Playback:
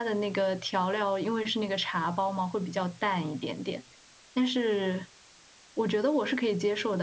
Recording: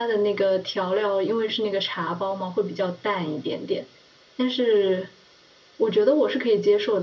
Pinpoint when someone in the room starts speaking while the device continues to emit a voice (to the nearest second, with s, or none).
none